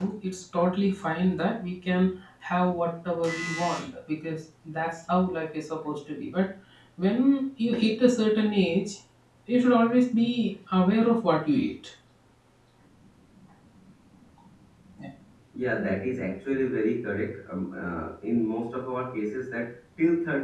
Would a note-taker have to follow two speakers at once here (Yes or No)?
No